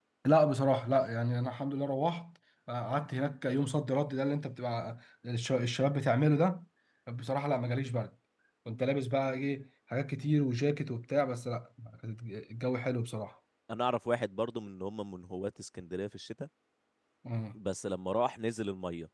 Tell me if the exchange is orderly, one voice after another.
Yes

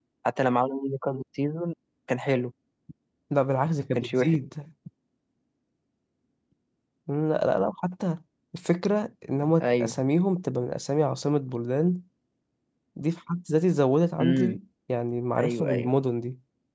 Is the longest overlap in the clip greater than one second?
No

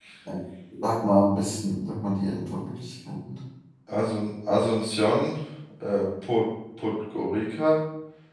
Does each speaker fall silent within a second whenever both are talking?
Yes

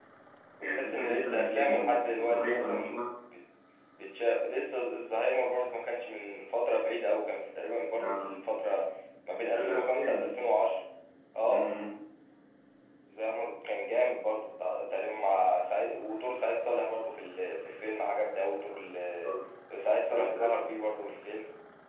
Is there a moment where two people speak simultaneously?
Yes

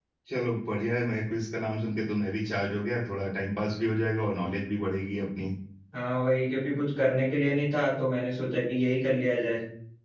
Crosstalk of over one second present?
No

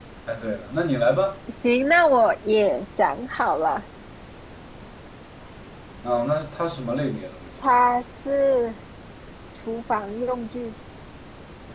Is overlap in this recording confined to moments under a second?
Yes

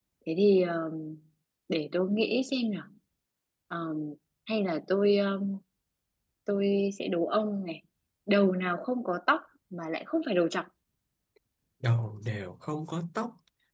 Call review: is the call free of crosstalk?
Yes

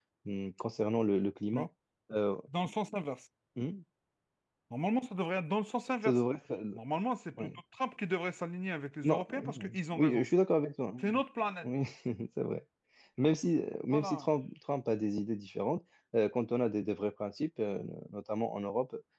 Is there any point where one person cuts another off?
Yes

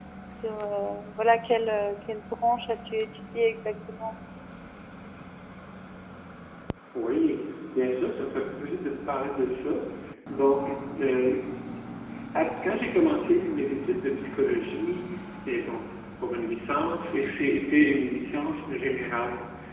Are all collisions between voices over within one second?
Yes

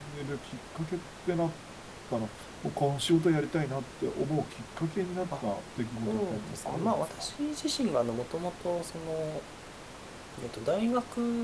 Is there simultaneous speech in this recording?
Yes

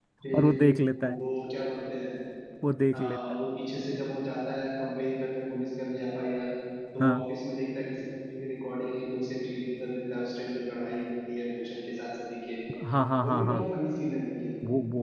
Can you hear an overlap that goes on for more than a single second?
No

